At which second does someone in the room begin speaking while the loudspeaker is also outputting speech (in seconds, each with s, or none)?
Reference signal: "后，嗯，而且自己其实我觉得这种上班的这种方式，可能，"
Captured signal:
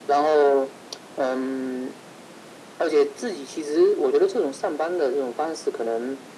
none